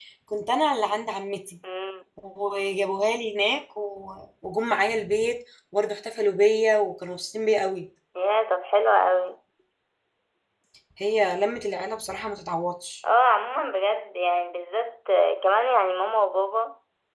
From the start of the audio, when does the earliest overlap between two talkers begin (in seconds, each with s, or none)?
none